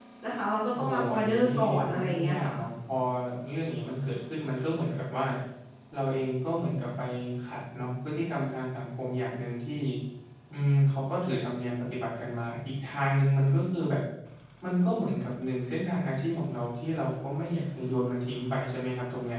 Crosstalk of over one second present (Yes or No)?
Yes